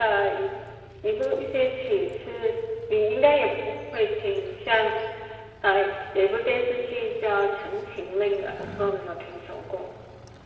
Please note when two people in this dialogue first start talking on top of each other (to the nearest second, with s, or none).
none